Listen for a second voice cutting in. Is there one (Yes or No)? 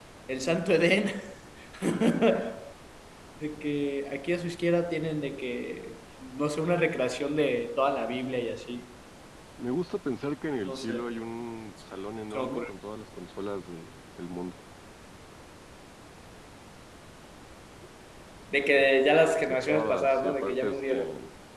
Yes